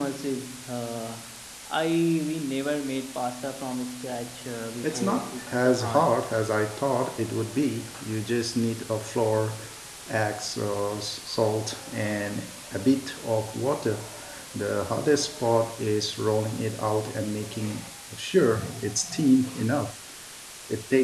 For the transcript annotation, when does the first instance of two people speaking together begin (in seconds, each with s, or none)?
4.8 s